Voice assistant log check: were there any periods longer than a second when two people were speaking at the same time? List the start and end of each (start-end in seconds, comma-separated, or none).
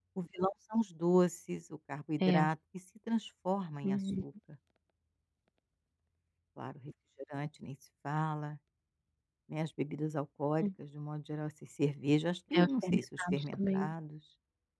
12.6-13.9